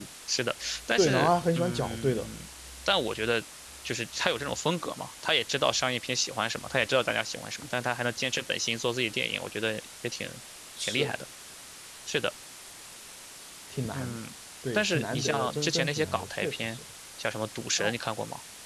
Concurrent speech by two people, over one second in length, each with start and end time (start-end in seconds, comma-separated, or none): 1.0-2.2, 14.7-16.8